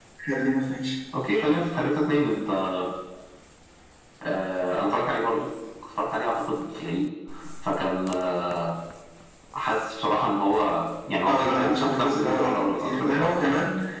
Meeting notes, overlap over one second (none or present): present